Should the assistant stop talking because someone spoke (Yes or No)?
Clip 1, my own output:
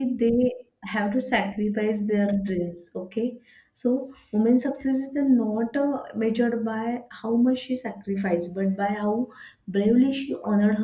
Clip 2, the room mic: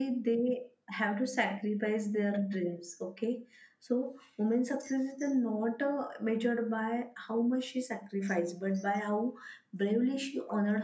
No